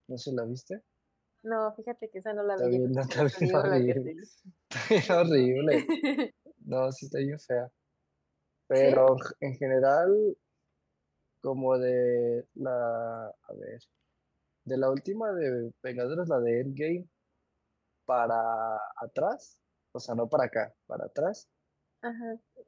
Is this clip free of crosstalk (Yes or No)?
No